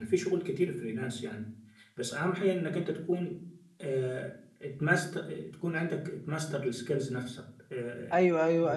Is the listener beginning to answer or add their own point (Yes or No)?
Yes